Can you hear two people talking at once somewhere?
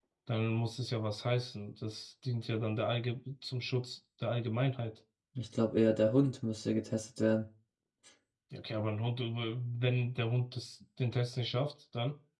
No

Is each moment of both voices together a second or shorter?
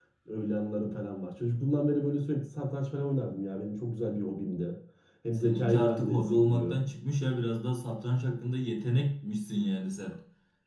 No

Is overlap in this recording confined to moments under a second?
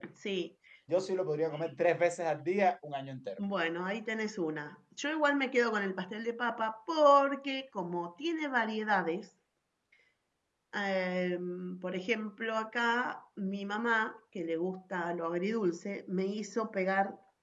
Yes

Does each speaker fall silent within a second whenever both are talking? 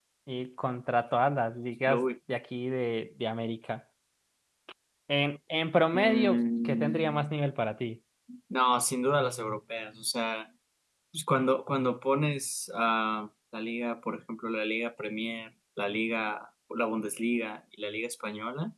No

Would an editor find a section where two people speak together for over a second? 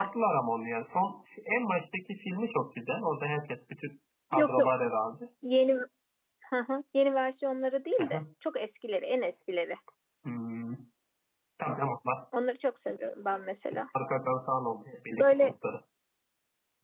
No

